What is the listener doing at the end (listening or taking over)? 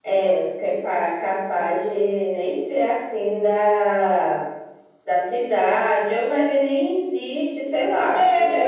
taking over